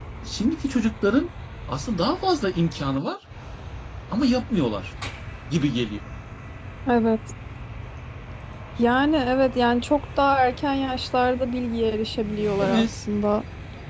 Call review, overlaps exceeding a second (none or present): none